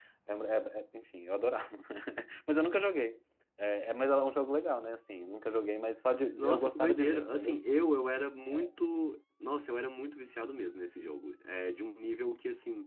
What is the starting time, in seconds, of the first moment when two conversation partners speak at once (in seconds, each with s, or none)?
6.3 s